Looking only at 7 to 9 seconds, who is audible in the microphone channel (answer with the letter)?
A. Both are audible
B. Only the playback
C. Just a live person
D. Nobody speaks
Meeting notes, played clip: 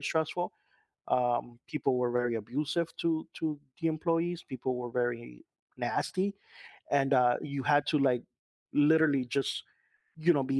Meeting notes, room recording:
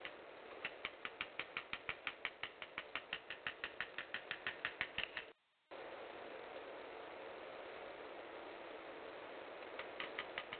D